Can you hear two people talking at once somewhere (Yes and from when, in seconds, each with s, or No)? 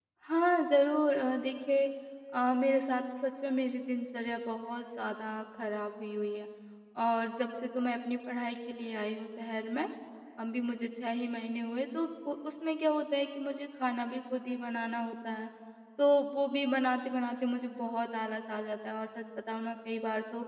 No